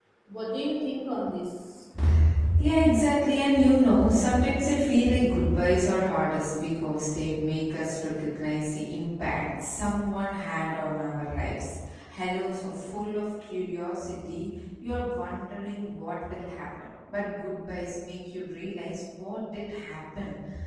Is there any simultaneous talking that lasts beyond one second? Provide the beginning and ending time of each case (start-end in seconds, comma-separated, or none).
none